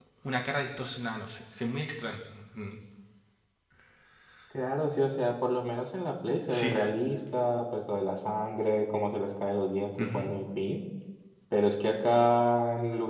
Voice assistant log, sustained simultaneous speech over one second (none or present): none